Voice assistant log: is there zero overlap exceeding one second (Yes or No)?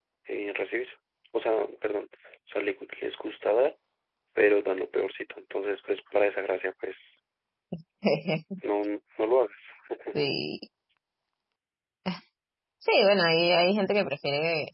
Yes